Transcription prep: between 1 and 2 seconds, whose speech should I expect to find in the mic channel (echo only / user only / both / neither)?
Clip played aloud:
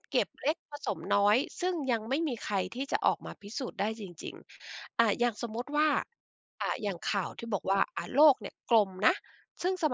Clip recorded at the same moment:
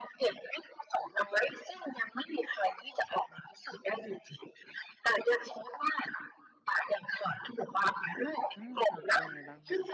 echo only